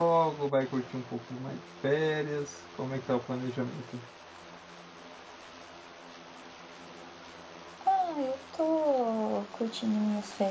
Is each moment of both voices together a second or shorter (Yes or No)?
Yes